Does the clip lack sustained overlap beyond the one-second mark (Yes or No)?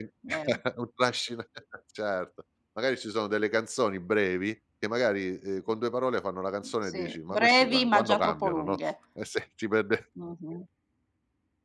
No